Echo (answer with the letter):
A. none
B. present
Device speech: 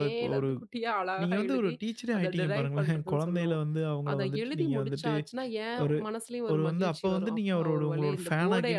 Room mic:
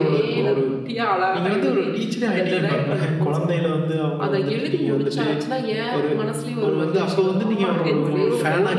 B